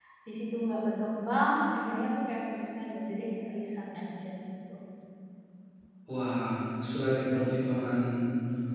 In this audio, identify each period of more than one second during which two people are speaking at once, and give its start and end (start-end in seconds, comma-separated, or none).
none